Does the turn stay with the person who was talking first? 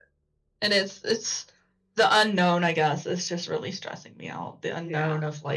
Yes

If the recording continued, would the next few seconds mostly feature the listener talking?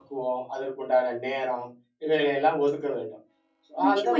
Yes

